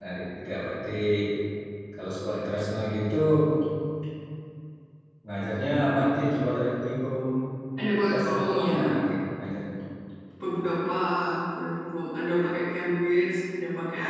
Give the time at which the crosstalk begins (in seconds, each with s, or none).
8.0 s